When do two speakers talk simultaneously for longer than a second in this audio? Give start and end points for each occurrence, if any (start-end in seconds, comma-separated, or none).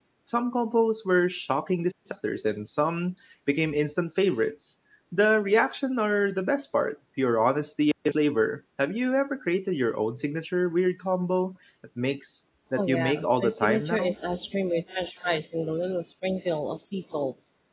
12.8-14.2